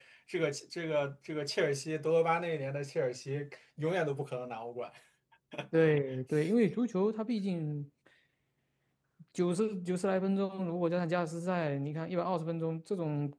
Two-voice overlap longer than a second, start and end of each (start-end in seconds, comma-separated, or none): none